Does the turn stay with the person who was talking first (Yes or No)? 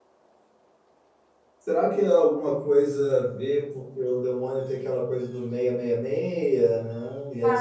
No